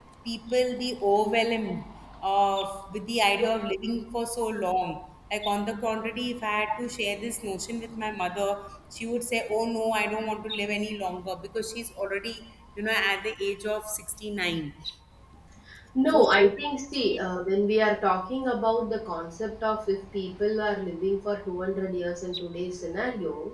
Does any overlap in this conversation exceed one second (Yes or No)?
No